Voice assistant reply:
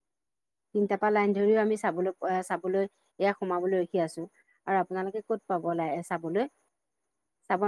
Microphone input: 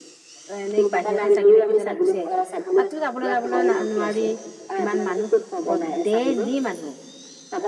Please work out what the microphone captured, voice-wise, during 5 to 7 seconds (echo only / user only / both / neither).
both